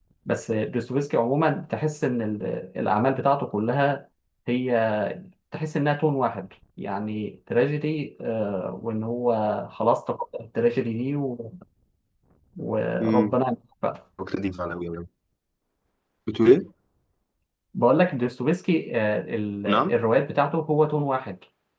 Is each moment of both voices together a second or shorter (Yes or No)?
Yes